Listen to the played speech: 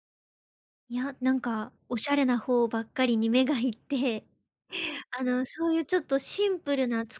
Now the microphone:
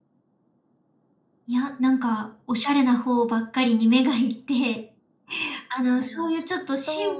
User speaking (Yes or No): Yes